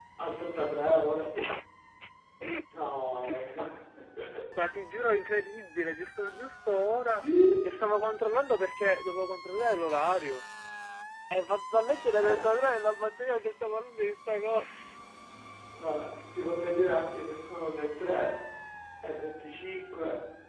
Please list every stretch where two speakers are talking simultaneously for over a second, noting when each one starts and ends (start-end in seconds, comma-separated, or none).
none